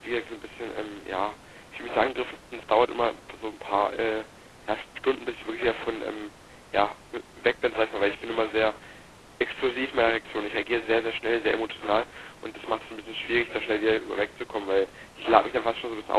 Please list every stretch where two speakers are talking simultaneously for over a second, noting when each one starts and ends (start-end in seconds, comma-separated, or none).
none